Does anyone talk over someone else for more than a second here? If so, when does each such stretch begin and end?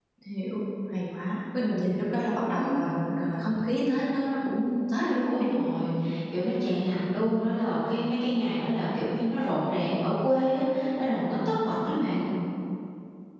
none

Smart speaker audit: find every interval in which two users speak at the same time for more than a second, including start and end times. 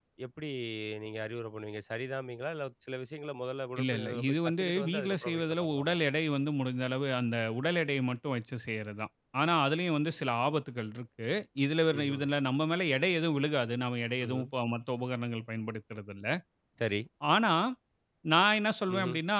3.8-6.0

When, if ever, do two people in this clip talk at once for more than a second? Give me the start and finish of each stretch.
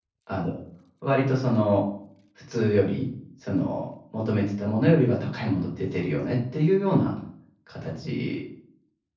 none

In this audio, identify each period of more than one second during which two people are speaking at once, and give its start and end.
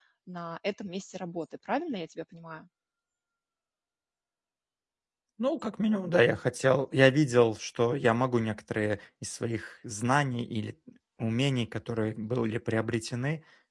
none

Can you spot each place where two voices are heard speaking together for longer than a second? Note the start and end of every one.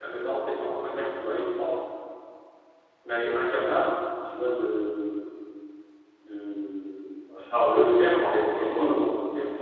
7.7-9.1

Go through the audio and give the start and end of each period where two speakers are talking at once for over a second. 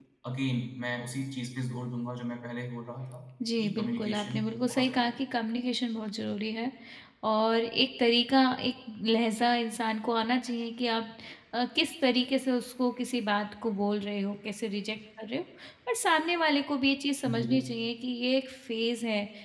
3.6-5.2

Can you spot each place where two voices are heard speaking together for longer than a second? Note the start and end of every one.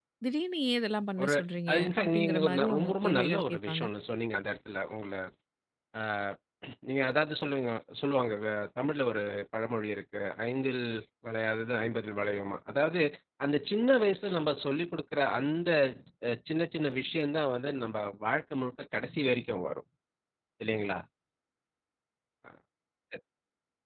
1.7-3.8

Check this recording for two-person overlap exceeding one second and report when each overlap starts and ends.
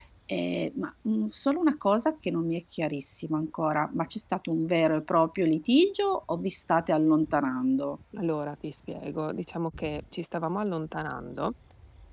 none

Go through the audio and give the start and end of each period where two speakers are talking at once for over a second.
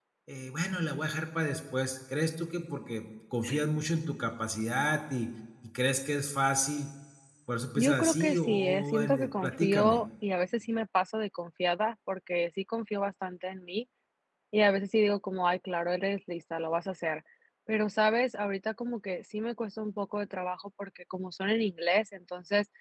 7.8-10.0

